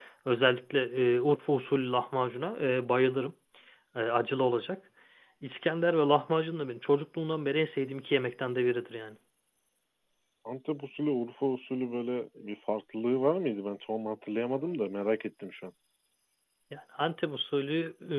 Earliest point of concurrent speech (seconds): none

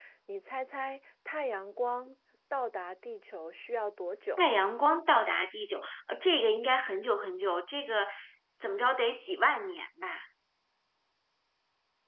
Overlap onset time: none

